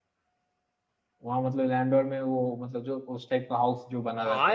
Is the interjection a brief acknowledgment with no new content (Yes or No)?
No